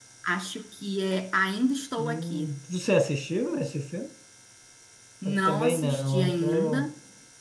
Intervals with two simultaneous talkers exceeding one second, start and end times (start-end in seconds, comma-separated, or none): 5.2-6.8